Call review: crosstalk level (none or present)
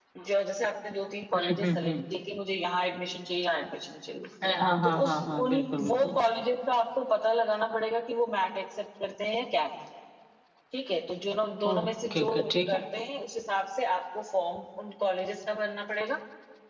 present